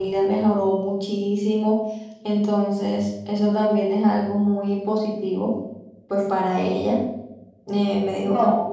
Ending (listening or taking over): listening